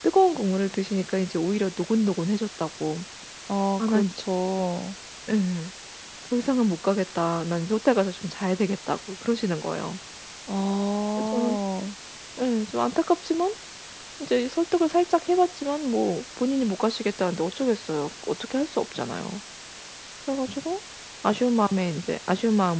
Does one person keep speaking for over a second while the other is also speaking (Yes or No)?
No